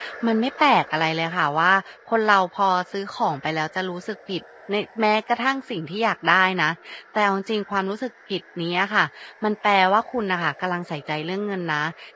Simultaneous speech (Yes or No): No